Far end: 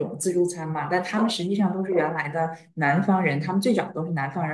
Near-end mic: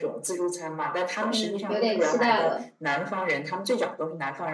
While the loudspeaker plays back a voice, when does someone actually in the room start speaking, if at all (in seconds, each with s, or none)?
1.3 s